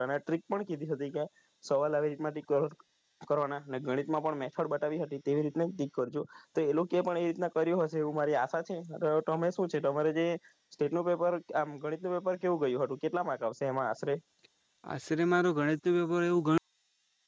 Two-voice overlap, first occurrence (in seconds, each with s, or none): none